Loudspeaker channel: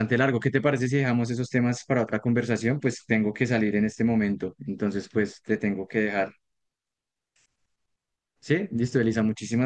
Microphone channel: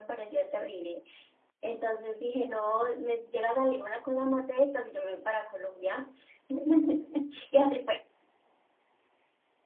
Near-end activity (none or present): present